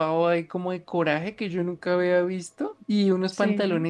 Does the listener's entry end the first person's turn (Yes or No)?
No